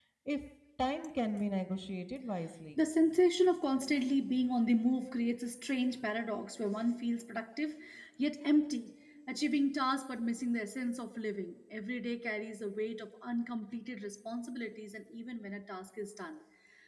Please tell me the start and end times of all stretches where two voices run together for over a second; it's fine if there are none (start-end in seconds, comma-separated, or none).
none